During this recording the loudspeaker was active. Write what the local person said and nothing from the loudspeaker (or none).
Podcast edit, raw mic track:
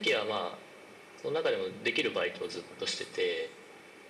none